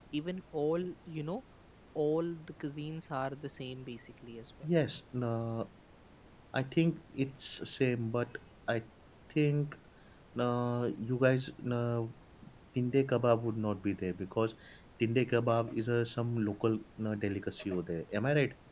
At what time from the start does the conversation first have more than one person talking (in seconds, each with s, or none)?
none